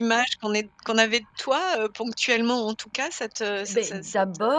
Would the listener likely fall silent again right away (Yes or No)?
No